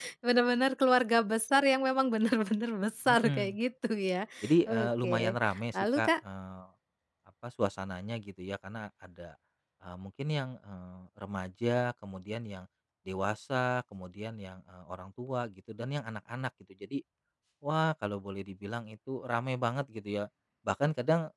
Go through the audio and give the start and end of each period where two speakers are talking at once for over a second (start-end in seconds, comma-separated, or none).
4.7-6.1